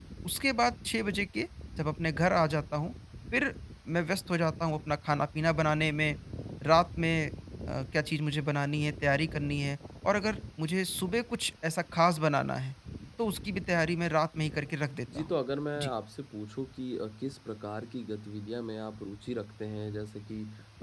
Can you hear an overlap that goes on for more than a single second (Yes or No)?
No